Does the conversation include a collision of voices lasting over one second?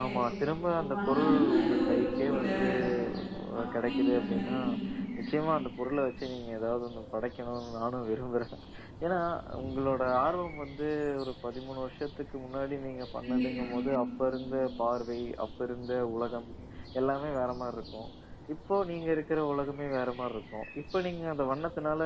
Yes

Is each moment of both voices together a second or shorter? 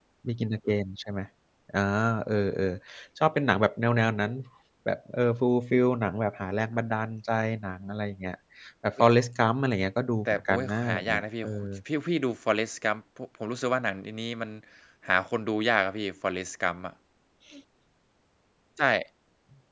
No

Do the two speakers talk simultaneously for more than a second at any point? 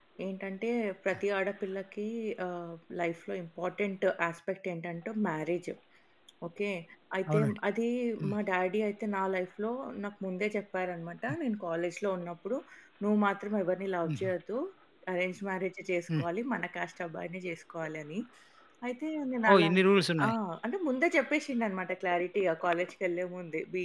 No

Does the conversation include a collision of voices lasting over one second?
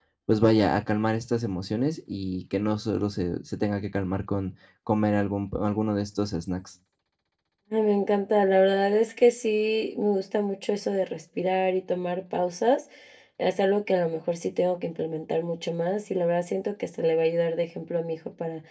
No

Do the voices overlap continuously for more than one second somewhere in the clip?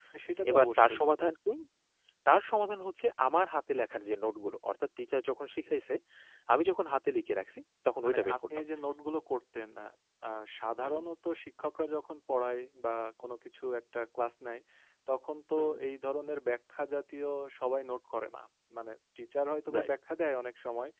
No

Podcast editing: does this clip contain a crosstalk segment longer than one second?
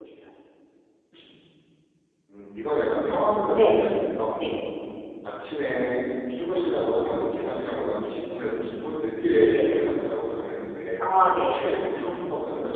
No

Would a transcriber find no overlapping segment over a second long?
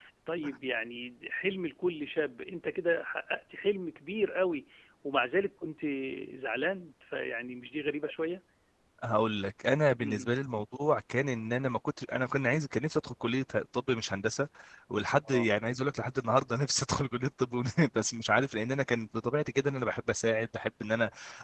Yes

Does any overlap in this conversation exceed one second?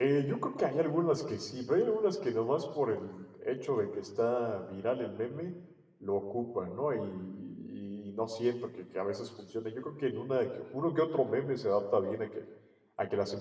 No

